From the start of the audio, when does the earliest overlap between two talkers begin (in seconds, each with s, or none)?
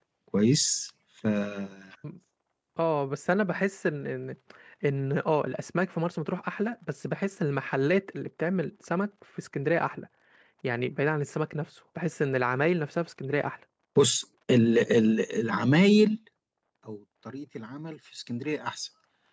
none